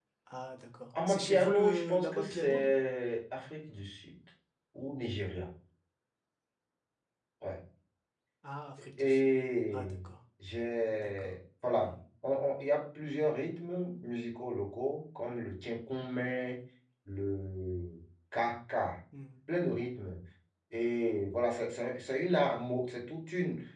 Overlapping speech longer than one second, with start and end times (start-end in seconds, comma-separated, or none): 1.1-2.7